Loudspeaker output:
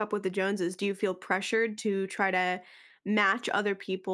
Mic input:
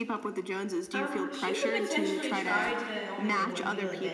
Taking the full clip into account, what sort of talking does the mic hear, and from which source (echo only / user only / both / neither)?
both